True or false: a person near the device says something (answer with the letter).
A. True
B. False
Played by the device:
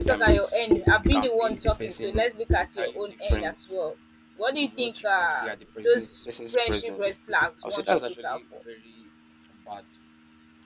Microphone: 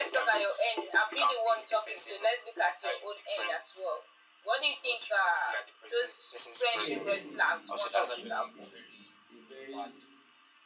A